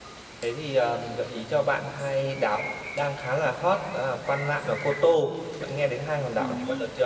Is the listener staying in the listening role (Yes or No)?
No